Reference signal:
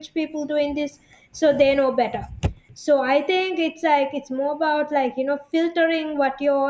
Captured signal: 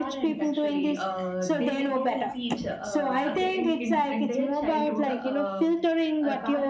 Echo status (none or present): present